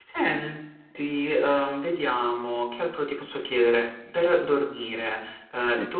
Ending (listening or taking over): listening